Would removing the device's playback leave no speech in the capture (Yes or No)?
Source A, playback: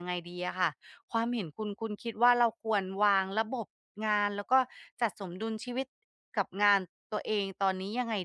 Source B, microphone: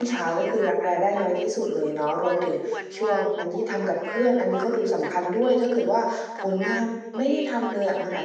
No